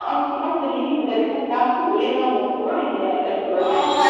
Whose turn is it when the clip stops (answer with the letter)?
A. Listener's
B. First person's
A